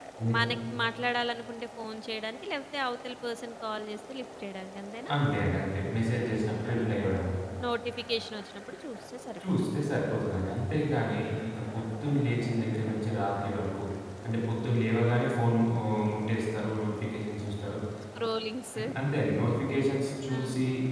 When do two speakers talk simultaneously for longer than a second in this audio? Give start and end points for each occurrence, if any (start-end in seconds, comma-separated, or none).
none